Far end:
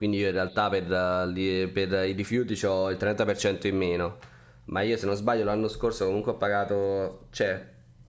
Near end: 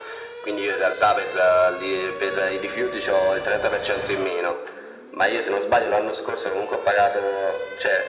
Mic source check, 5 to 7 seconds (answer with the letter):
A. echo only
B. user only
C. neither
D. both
A